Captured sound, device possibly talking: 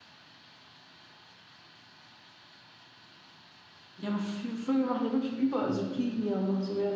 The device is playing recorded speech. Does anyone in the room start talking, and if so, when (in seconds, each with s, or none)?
none